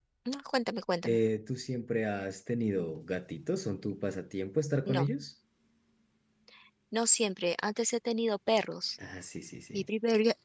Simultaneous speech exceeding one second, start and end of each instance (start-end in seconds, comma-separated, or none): none